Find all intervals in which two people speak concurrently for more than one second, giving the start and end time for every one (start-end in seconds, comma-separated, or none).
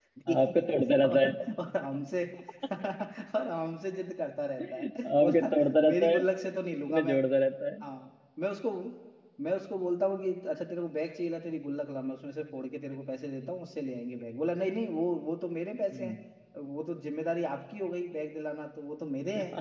4.8-6.2